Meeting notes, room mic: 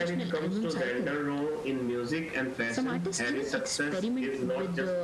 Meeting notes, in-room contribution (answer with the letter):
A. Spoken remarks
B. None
B